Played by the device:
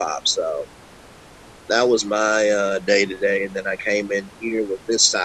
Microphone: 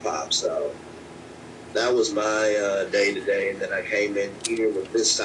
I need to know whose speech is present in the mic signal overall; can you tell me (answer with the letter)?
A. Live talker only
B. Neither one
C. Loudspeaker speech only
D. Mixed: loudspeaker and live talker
C